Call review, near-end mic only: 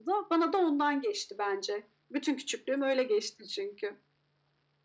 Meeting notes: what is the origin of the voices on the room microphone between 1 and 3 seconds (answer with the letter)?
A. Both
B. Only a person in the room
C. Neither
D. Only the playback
D